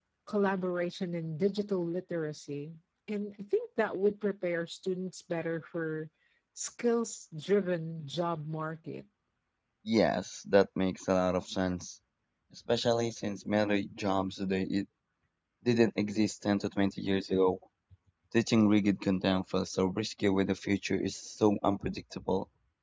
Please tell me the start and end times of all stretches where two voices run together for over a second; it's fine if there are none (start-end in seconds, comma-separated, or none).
none